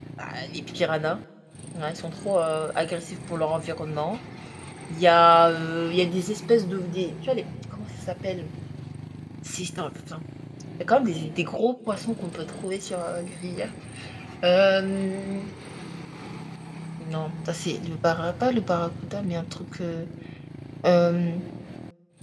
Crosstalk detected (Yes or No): No